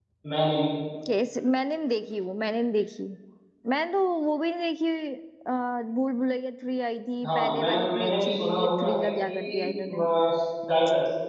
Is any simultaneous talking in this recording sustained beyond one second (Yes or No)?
Yes